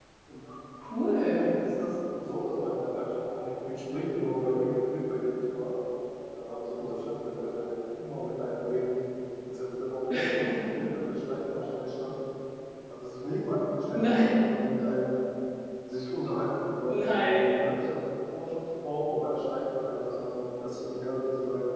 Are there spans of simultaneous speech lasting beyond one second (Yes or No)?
No